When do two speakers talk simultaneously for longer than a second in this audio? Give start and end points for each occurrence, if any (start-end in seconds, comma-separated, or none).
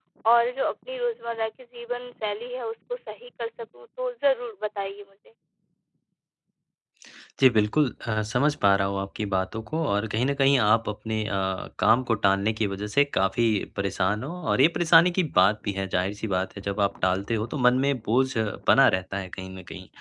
none